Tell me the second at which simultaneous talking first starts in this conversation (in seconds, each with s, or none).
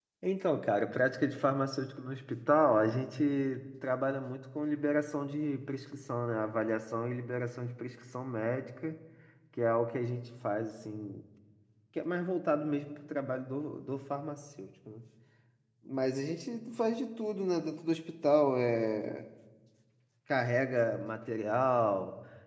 none